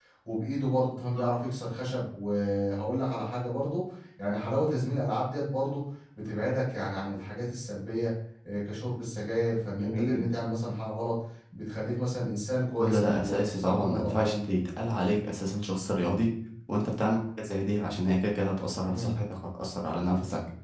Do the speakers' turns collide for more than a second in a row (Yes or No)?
Yes